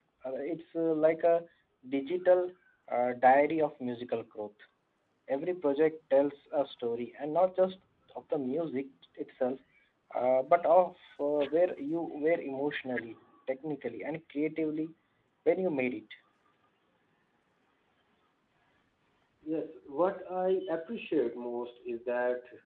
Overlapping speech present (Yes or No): No